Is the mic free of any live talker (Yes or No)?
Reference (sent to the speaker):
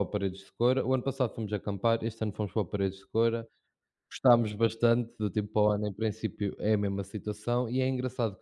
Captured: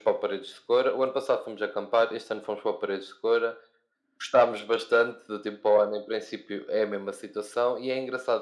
Yes